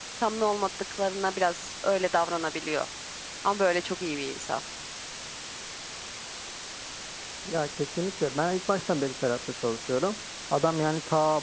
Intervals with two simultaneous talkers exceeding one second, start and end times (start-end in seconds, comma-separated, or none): none